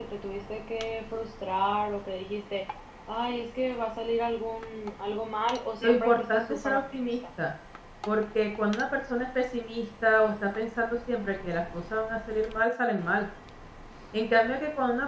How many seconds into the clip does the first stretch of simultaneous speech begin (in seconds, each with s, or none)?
5.8 s